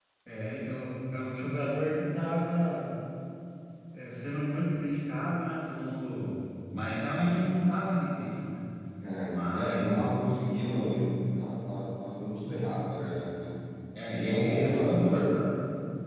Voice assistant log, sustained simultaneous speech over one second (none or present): present